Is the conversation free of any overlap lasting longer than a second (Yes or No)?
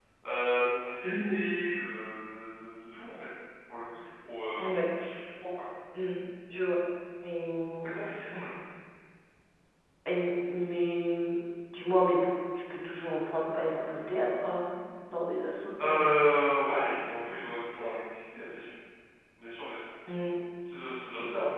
Yes